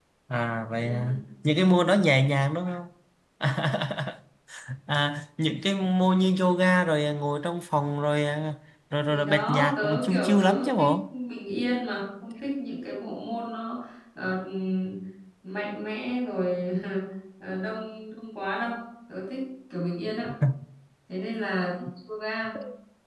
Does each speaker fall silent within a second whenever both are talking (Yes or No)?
No